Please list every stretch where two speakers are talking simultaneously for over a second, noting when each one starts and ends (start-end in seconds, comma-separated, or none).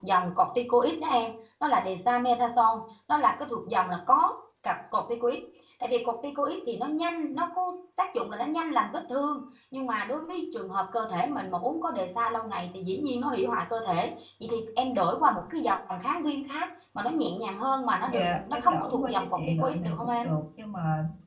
18.1-20.3